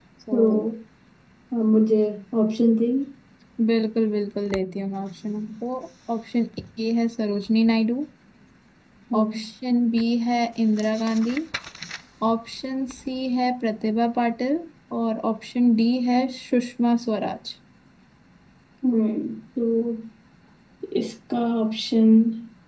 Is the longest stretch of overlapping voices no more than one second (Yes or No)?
Yes